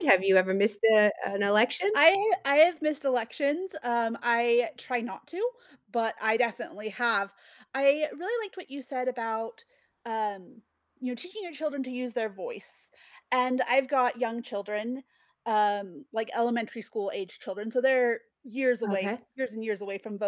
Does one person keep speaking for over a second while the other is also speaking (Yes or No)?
No